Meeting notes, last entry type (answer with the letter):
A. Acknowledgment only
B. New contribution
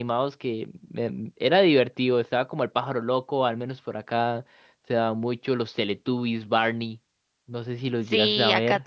B